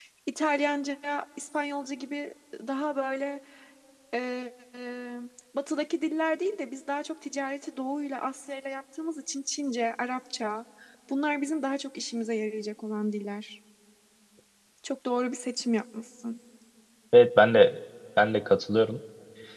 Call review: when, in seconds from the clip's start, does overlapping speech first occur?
none

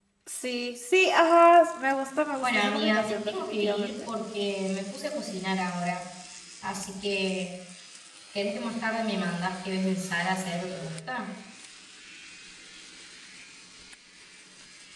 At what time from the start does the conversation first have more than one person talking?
2.4 s

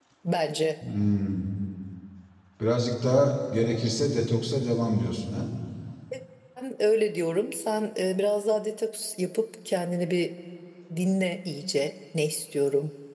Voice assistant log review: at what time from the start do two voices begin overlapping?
none

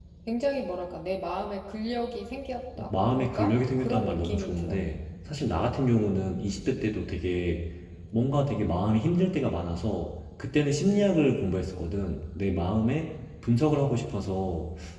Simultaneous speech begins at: 2.8 s

